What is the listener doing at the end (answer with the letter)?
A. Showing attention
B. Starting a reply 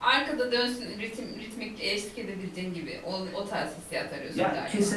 B